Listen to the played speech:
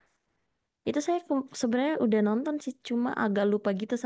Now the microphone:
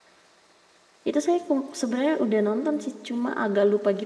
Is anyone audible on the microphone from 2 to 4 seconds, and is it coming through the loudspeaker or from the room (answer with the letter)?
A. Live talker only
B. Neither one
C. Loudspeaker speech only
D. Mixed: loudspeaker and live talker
C